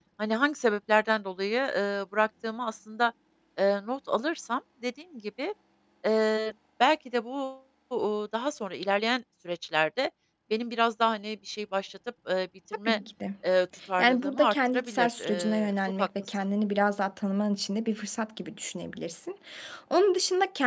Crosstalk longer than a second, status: present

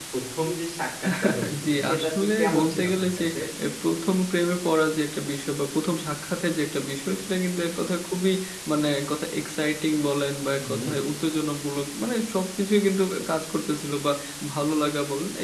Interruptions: present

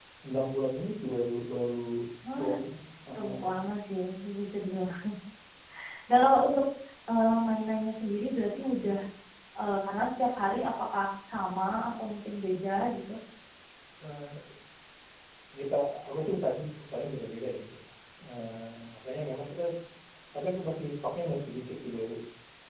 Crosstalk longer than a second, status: none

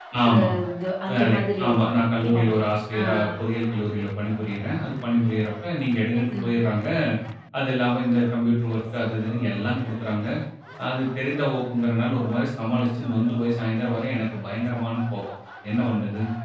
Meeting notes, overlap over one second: present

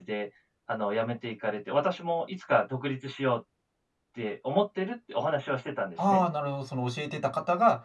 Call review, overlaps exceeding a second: none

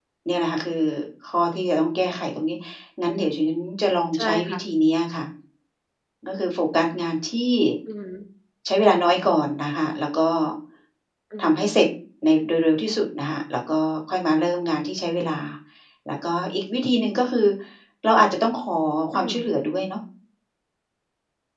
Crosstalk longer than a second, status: none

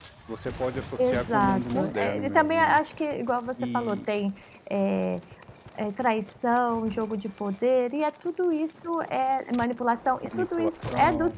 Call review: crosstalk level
present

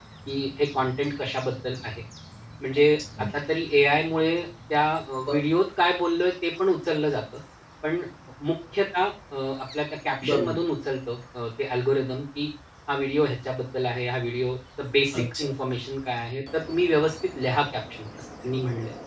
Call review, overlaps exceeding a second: none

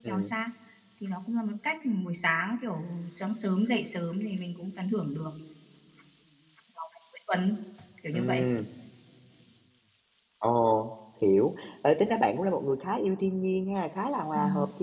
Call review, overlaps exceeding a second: none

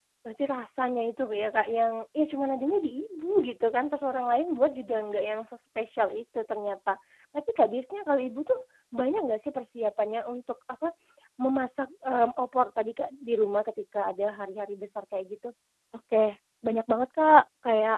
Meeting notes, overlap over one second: none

